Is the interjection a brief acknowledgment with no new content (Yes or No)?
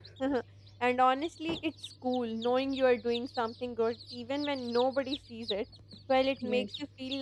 Yes